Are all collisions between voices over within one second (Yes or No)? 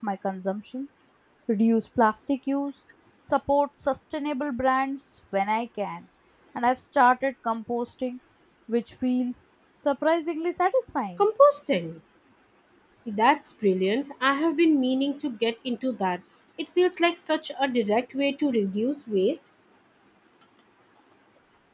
Yes